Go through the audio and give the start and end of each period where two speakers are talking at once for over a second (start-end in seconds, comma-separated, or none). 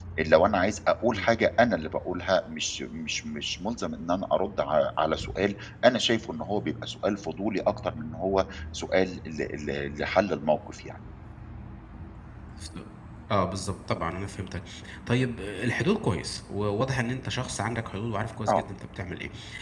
none